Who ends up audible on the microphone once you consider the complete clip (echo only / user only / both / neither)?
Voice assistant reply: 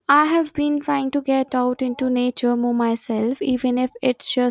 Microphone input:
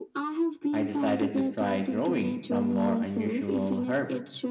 both